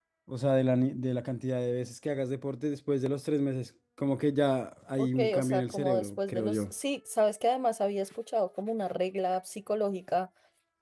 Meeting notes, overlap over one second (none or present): present